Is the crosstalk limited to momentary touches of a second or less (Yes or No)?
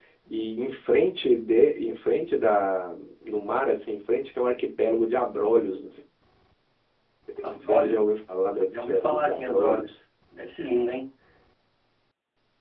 No